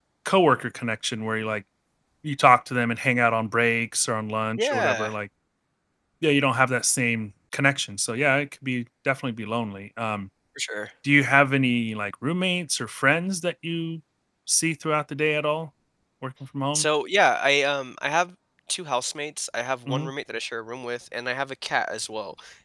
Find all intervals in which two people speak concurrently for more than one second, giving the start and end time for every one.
none

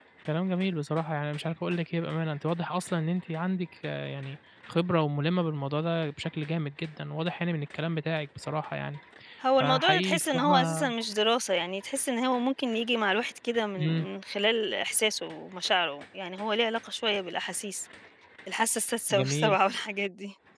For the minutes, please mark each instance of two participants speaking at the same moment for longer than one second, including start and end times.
9.6-10.9

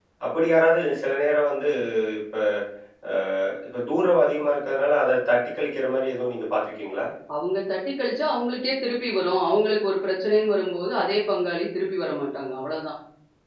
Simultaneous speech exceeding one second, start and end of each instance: none

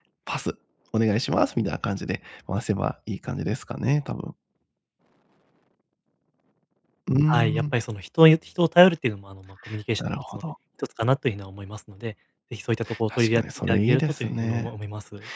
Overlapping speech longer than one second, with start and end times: 13.2-14.7

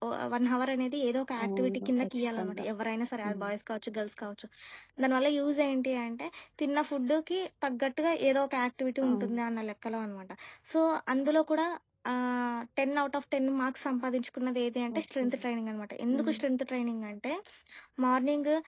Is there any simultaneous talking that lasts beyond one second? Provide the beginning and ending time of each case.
1.4-2.6

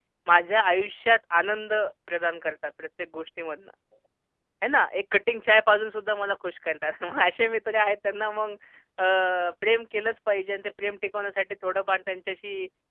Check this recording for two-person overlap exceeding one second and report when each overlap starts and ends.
none

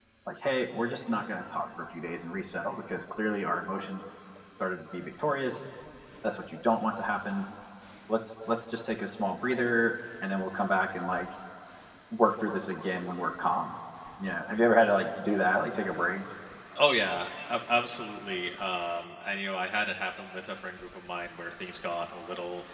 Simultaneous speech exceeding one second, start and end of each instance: none

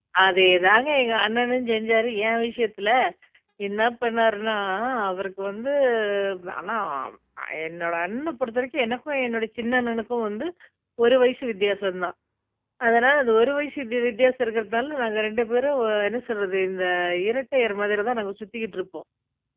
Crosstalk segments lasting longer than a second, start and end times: none

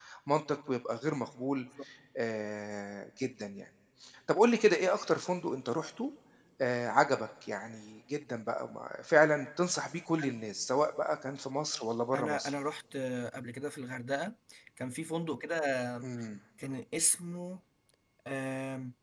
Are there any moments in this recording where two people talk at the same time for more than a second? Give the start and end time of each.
none

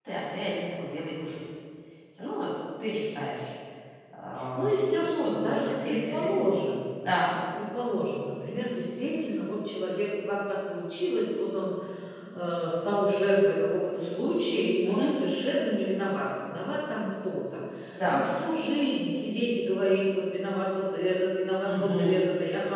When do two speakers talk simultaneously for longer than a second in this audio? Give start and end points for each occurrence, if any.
4.6-6.5

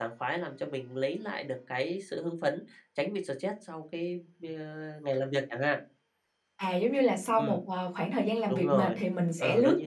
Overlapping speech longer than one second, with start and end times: none

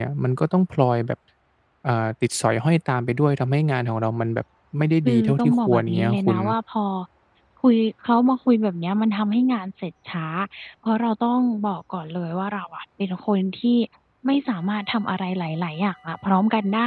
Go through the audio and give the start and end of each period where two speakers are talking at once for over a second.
5.0-6.4

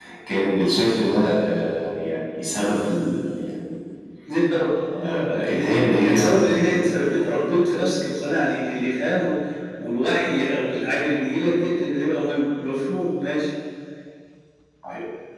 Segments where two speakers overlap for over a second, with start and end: 5.0-6.8

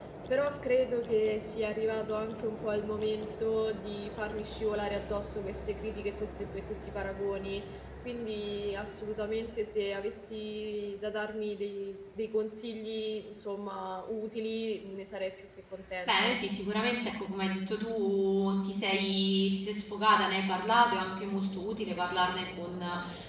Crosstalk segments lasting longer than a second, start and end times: none

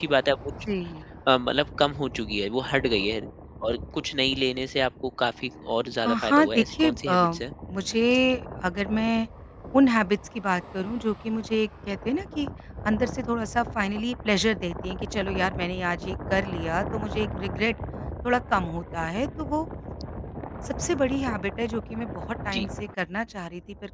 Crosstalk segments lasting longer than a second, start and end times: 6.0-7.3

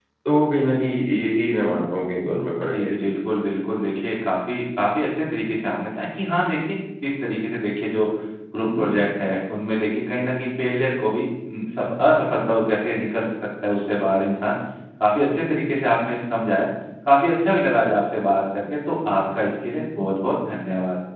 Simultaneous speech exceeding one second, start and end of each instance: none

